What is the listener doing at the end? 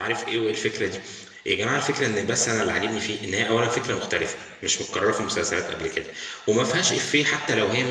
listening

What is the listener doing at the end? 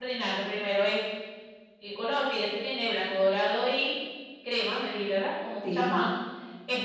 listening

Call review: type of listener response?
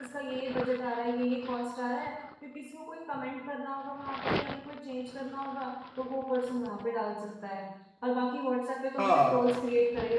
listening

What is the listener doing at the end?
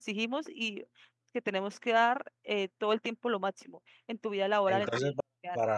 taking over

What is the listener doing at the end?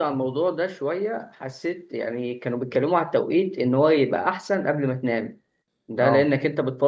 listening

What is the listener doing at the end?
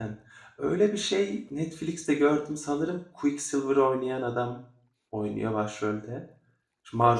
taking over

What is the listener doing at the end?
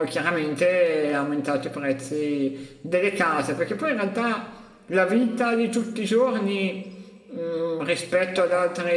listening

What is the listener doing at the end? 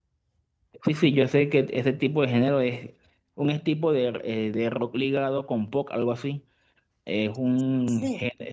listening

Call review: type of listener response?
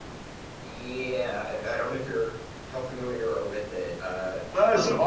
taking over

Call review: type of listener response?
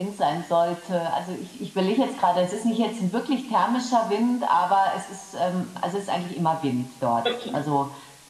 listening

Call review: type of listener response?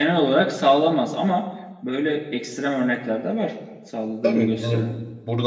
taking over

